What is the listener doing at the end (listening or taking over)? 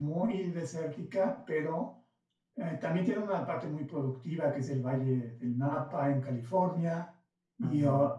listening